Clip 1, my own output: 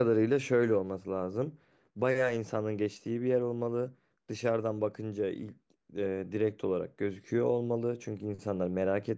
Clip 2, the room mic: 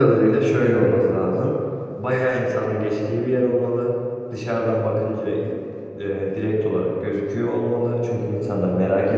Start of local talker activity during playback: none

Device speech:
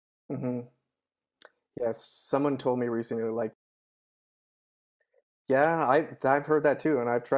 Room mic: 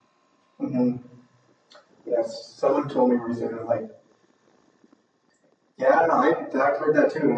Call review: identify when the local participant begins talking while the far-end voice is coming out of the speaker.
none

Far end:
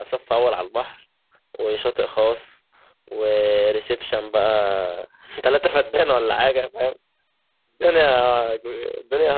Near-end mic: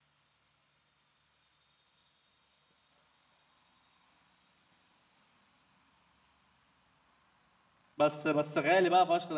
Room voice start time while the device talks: 8.0 s

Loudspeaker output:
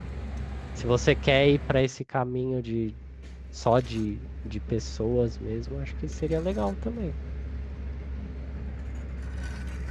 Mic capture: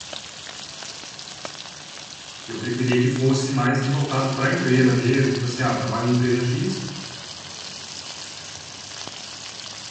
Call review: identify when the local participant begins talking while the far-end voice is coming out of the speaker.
2.4 s

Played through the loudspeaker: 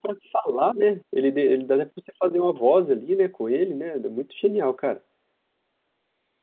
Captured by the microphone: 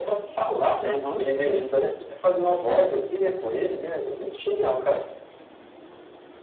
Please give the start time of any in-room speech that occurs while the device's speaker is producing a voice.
0.8 s

